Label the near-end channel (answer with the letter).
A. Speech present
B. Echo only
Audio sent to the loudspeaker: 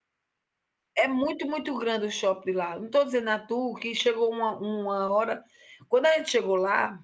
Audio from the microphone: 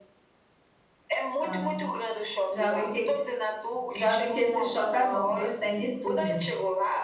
A